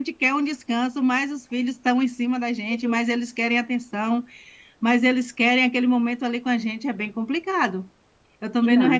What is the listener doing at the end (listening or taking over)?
listening